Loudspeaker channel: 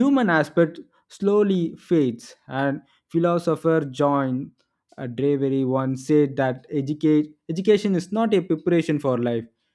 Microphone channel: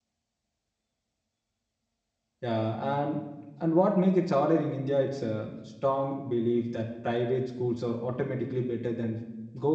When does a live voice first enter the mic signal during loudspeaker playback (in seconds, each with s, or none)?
2.4 s